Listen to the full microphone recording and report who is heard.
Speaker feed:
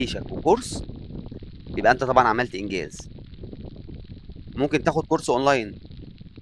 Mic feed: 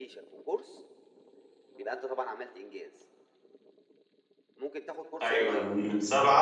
both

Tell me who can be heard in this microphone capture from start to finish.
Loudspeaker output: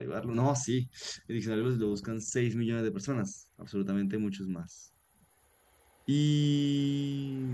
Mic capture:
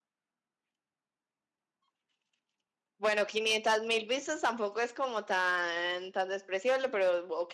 user only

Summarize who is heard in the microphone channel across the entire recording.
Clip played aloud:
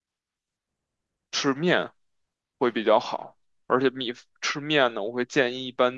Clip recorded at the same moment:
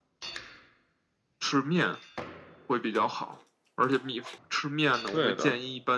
both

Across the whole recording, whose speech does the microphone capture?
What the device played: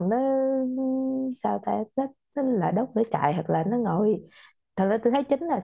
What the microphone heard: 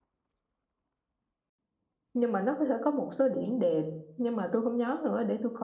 user only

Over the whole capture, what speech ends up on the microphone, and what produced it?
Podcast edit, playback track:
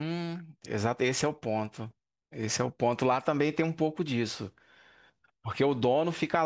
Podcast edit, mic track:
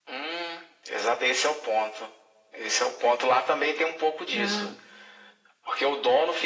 both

